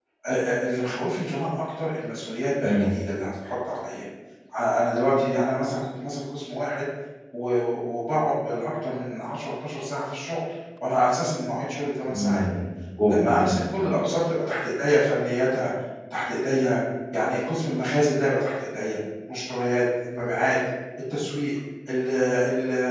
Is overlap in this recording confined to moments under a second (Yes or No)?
Yes